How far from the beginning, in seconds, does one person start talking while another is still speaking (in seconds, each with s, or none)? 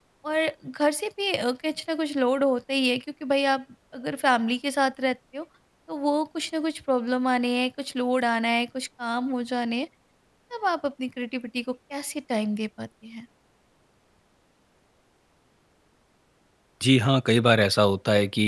none